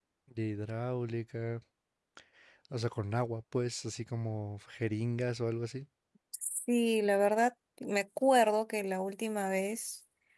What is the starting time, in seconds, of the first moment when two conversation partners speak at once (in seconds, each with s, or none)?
none